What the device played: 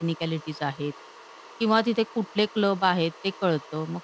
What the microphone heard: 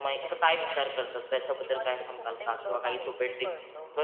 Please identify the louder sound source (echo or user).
user